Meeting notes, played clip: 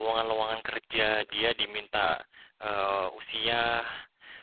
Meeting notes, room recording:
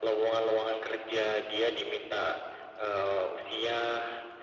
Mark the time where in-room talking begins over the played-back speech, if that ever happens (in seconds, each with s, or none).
none